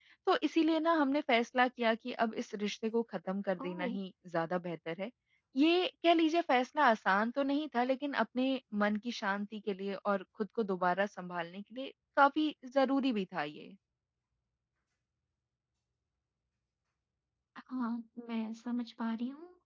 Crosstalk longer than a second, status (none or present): none